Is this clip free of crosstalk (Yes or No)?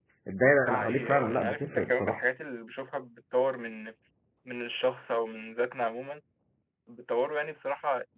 No